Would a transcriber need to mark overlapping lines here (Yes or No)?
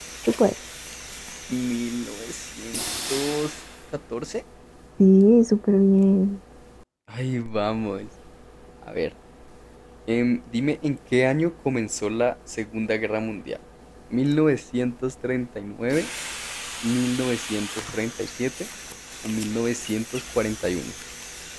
No